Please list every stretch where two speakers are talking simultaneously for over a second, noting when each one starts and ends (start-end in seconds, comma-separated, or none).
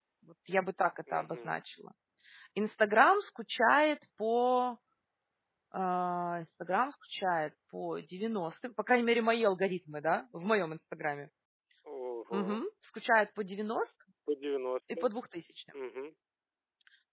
none